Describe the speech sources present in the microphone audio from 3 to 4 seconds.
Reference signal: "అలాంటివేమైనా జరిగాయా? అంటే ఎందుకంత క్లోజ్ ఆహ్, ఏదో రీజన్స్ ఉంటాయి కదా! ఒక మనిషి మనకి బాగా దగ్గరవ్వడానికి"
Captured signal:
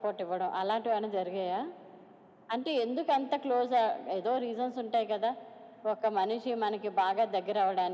echo only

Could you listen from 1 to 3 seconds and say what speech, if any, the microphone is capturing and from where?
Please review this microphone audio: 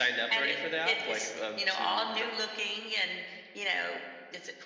echo only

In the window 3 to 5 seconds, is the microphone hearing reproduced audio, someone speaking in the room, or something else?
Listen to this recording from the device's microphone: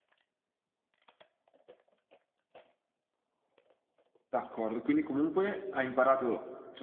user only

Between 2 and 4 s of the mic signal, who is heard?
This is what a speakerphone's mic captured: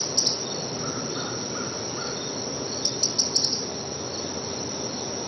neither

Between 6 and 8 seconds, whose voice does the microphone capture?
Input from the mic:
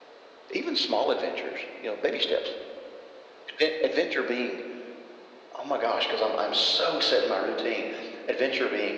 echo only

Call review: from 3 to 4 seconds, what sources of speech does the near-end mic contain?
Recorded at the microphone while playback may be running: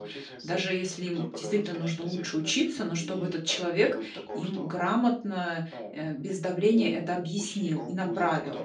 both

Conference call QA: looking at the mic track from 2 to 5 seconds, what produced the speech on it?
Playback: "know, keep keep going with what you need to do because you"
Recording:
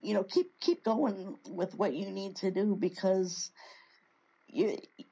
echo only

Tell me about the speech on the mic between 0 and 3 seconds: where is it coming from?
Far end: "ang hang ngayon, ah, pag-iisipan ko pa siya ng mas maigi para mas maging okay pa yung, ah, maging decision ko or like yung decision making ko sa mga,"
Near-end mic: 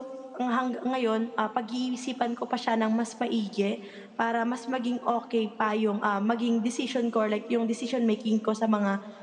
echo only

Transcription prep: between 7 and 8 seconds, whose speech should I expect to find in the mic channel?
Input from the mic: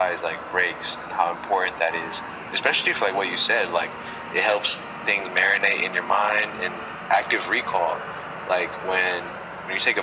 echo only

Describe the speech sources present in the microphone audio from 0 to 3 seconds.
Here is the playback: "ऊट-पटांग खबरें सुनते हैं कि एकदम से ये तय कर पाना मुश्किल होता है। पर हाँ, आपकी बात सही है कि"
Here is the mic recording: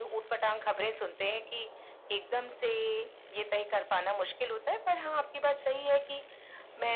echo only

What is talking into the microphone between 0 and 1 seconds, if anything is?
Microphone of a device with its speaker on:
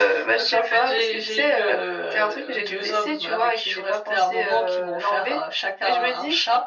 echo only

